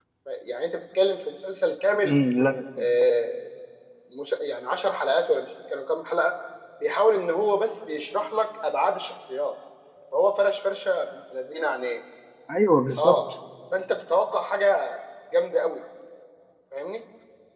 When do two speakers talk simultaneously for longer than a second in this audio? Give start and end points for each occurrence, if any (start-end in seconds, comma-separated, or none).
none